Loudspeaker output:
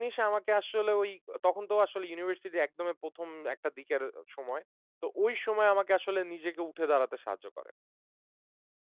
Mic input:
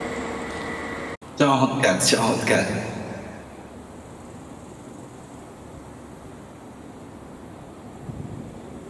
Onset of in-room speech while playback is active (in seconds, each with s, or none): 1.4 s